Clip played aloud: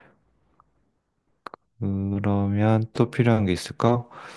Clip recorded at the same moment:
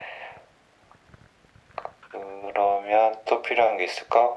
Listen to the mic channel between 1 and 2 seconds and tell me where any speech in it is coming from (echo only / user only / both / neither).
neither